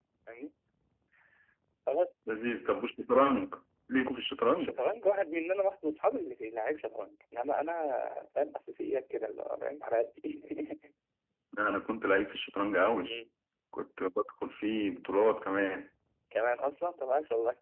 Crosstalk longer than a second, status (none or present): none